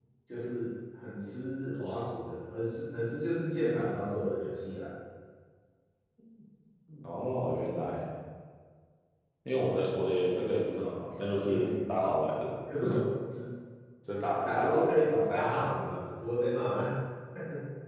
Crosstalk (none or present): present